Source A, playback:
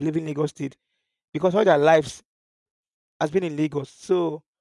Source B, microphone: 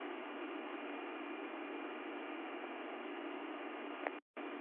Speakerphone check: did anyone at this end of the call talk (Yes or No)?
No